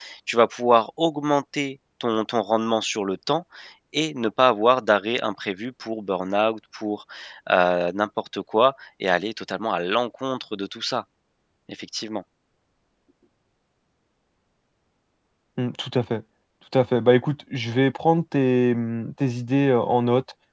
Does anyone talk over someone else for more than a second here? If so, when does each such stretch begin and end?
none

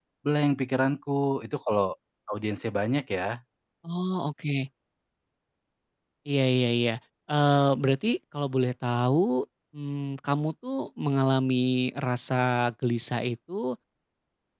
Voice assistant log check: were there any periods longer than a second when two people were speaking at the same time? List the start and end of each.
none

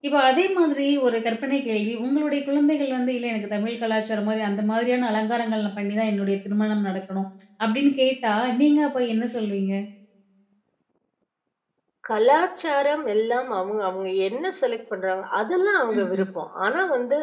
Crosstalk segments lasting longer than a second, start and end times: none

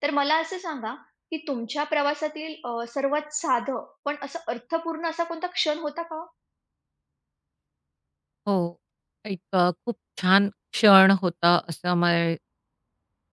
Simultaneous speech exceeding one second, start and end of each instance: none

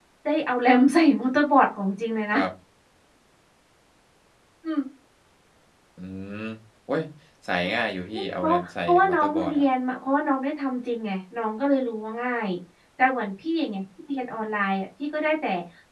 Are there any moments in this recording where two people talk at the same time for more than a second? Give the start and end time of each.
8.1-9.7

